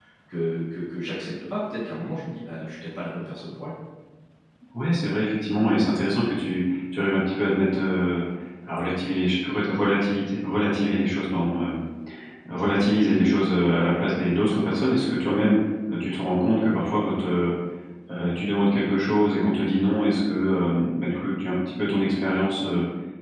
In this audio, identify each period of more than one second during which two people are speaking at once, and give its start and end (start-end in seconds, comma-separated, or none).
none